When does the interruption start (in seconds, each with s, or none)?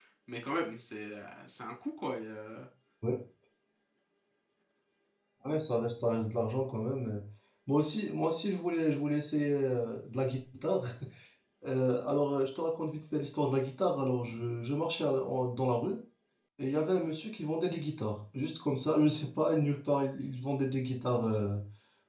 none